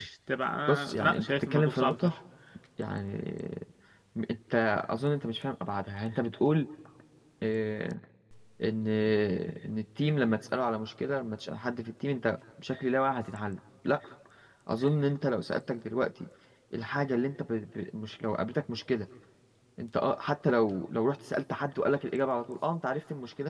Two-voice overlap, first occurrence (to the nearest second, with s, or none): 1 s